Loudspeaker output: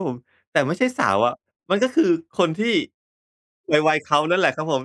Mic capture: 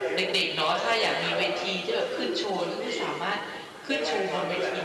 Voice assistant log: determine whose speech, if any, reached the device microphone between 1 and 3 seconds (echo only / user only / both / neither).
both